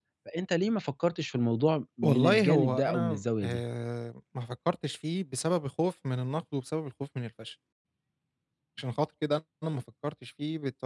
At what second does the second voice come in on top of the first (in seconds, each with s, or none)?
2.0 s